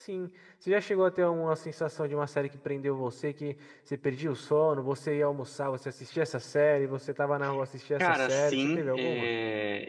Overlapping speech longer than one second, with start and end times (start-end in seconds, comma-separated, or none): 8.0-9.3